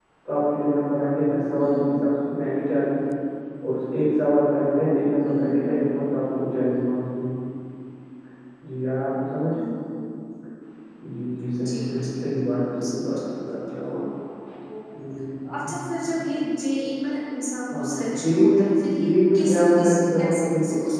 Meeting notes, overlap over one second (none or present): present